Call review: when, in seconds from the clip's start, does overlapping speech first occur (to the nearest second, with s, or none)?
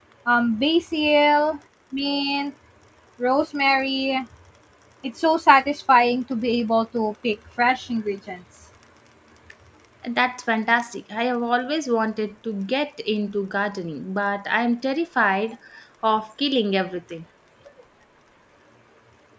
none